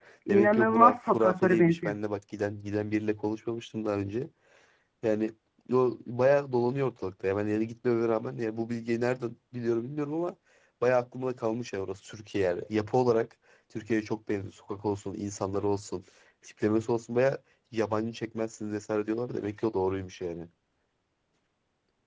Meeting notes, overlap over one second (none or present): present